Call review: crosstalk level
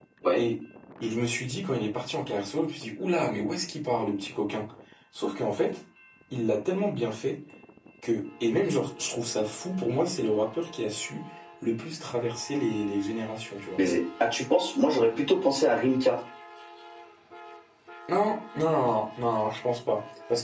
none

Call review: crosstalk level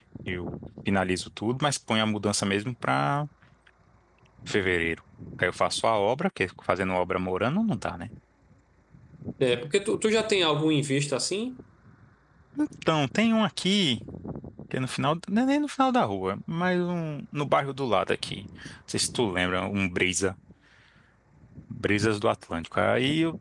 none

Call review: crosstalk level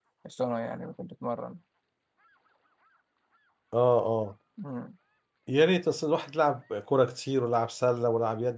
none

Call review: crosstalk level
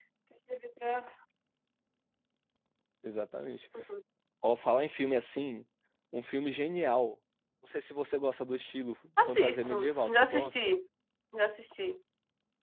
present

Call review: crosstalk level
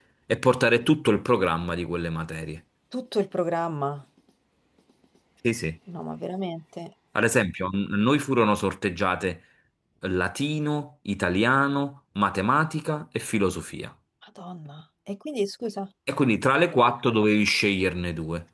none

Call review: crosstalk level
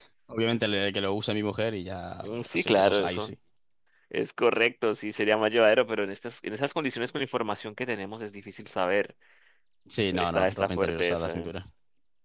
present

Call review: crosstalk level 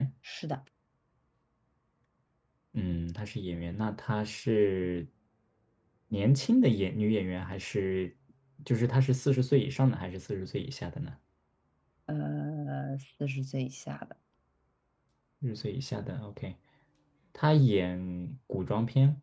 none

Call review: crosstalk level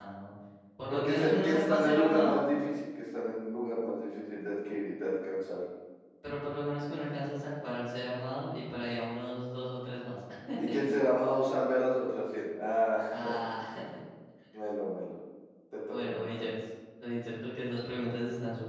present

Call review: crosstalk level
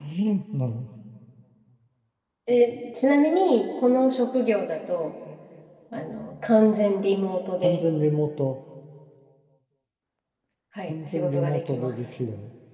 present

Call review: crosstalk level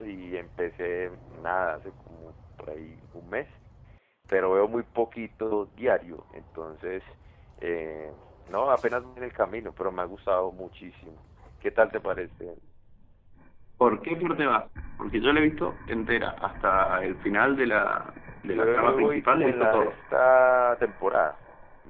present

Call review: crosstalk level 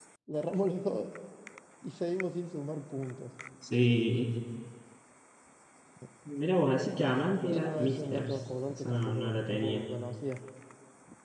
present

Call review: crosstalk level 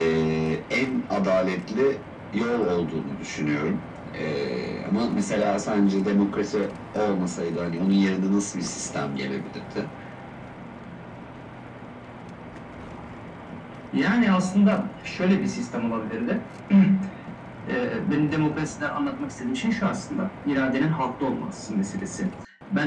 none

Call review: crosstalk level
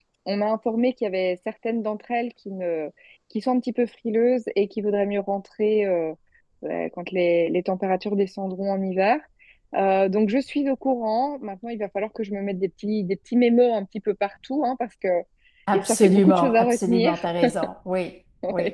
present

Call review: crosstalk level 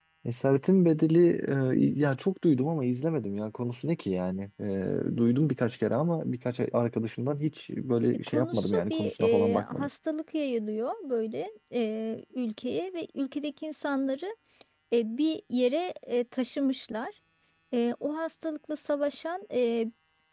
present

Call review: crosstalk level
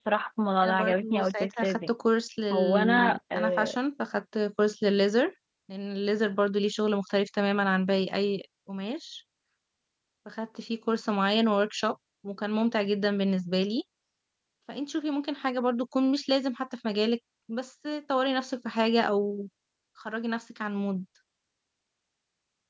present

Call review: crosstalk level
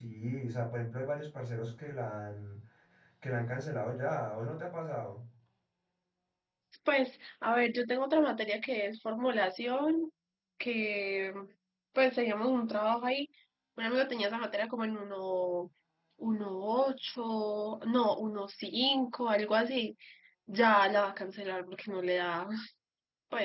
none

